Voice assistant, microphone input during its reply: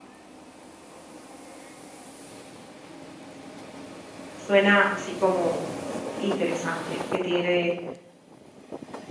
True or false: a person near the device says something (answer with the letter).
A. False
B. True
B